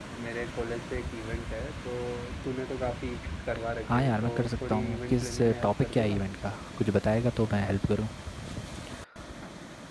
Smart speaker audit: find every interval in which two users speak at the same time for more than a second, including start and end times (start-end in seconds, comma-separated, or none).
3.9-6.2